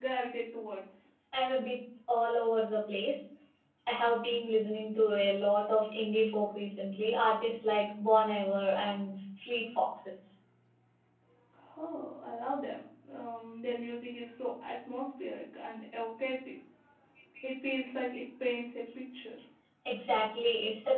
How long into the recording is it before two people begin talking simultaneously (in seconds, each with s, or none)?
none